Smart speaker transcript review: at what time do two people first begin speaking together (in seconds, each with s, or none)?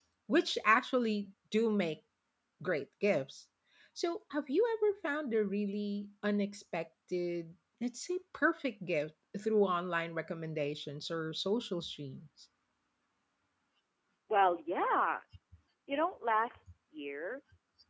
none